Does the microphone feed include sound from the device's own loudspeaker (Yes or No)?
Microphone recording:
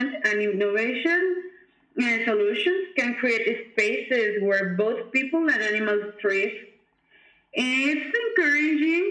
Yes